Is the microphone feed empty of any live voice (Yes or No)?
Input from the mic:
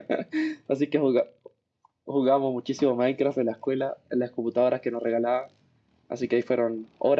Yes